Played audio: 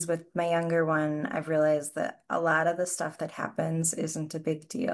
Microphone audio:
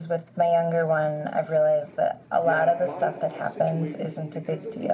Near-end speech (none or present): present